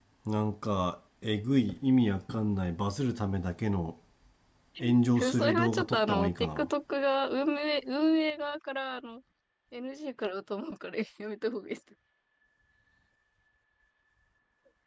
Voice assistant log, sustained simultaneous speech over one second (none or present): present